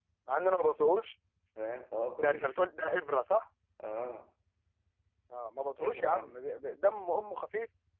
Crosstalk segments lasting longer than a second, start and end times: none

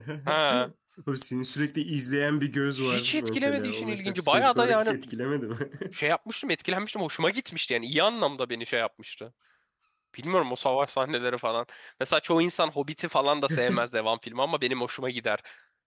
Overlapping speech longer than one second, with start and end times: 2.8-5.0

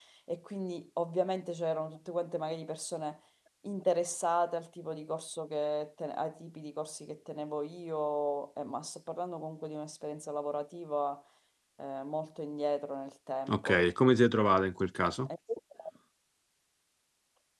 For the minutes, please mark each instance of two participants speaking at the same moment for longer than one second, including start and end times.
none

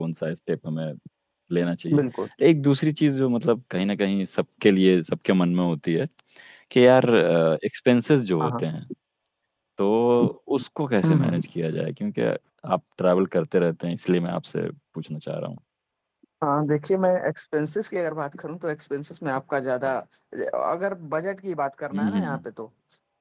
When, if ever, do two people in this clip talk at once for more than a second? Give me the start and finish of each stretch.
none

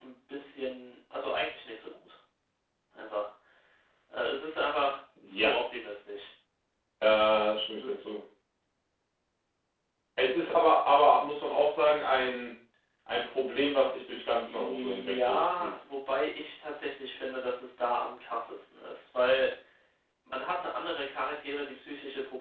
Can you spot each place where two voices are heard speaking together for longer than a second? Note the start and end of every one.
14.4-15.7

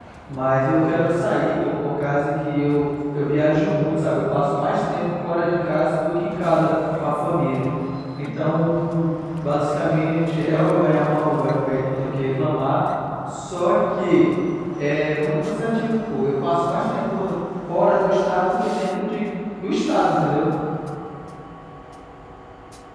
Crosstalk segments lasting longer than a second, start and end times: none

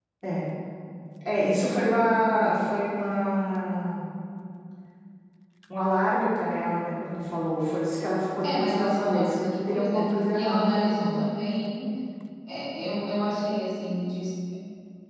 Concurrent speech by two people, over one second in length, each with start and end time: 8.4-11.2

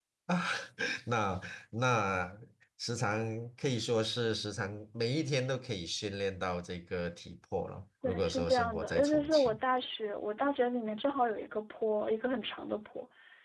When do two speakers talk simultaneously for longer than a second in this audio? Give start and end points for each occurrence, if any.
8.0-9.6

